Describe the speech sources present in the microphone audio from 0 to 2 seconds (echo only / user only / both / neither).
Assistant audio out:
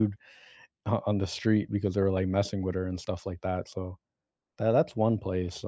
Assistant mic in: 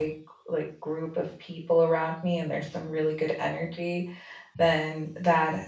user only